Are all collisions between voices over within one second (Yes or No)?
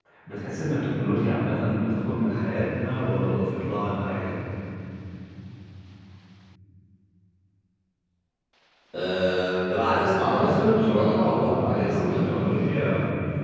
No